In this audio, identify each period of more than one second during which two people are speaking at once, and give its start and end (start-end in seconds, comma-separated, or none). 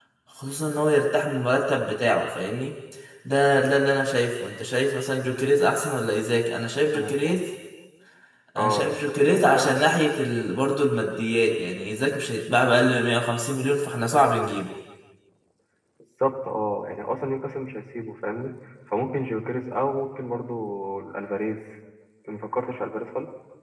8.6-9.8